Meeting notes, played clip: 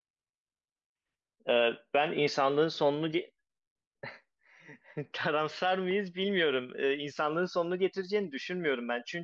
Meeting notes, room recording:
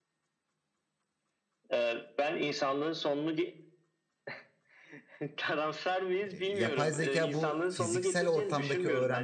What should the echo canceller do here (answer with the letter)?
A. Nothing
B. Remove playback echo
B